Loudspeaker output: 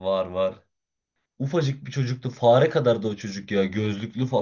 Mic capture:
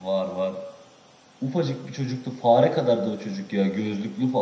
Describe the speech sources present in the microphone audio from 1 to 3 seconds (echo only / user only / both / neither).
echo only